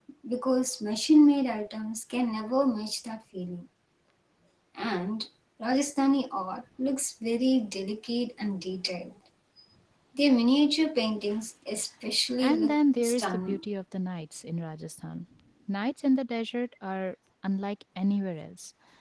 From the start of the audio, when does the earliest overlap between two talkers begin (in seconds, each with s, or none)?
12.4 s